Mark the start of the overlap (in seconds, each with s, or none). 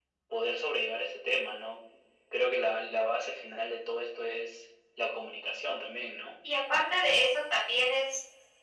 none